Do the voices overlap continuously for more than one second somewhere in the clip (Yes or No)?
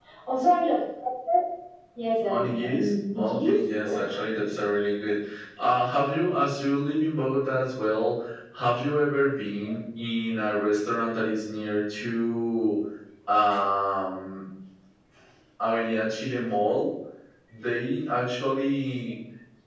Yes